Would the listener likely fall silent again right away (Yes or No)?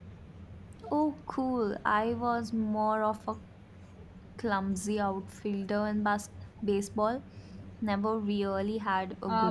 No